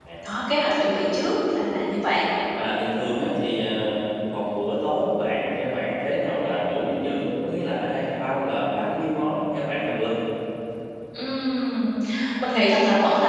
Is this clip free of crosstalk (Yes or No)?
Yes